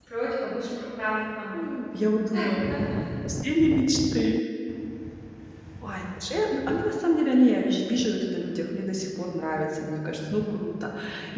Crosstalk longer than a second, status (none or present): none